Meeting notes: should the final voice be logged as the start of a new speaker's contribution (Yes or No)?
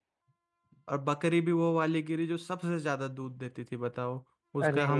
No